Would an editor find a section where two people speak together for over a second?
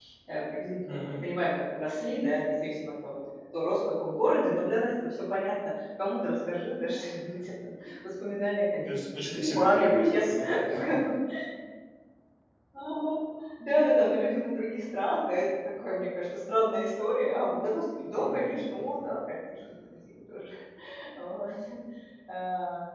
Yes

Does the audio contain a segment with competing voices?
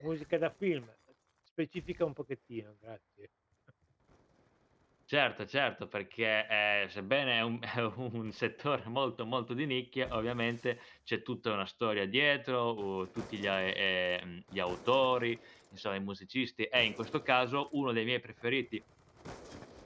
No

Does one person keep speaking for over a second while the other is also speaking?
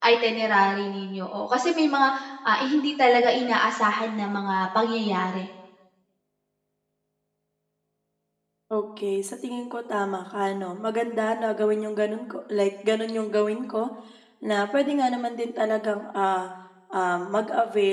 No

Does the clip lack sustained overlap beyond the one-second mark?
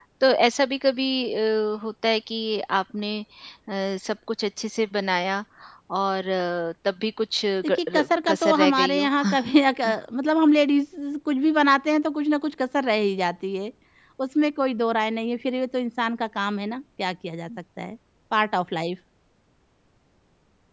No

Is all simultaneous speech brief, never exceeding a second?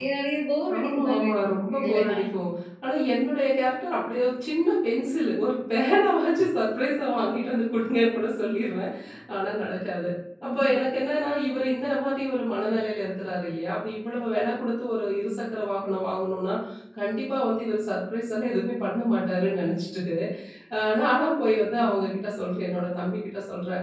No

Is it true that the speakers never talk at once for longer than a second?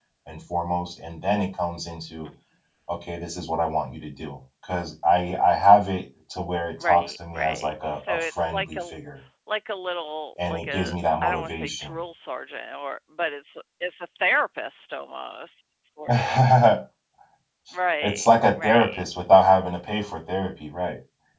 No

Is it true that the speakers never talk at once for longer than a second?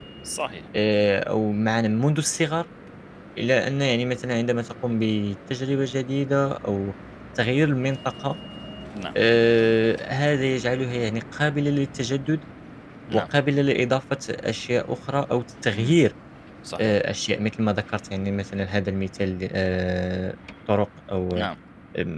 Yes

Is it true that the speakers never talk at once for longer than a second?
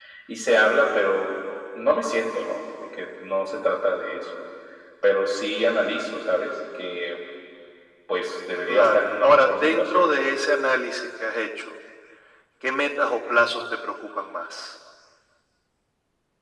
No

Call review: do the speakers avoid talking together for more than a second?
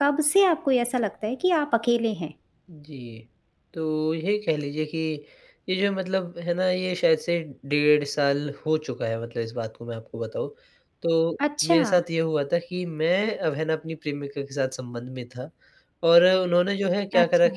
Yes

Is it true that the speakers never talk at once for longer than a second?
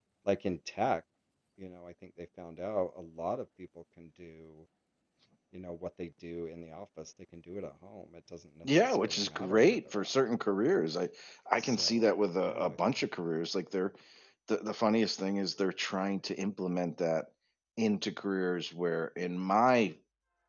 No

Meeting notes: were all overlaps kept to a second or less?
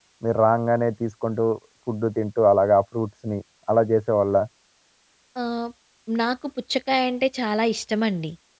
Yes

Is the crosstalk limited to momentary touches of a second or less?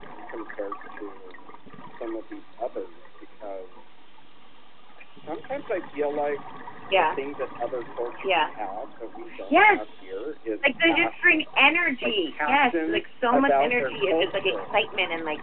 No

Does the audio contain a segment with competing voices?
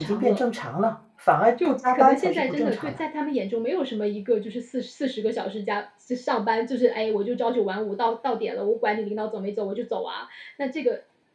Yes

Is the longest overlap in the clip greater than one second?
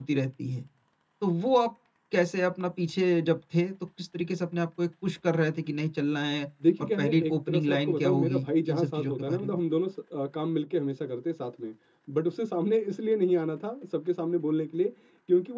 Yes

